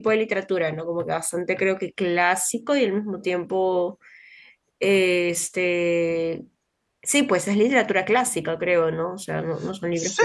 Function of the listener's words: taking over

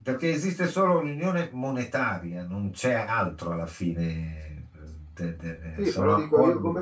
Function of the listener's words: taking over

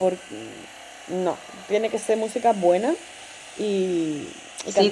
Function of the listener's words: taking over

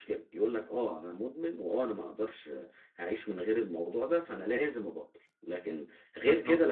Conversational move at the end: listening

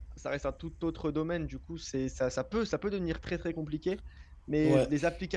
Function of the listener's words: listening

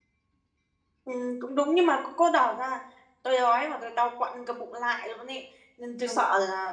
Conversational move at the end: listening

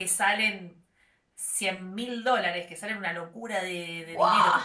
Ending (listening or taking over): listening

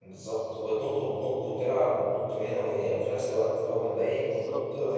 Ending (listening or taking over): listening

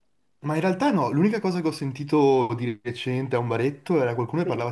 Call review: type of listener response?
listening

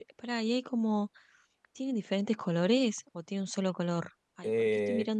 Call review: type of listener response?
taking over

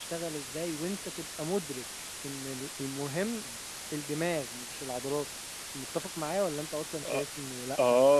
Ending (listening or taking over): taking over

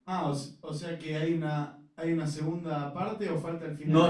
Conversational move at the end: taking over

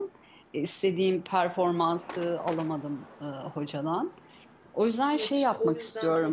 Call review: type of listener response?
taking over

